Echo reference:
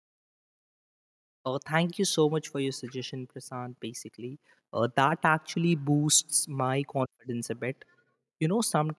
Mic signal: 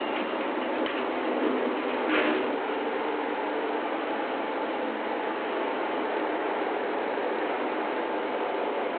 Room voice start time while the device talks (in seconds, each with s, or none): none